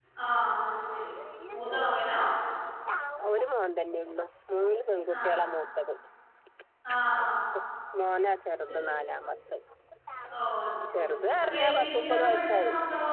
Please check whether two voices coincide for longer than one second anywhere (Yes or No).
Yes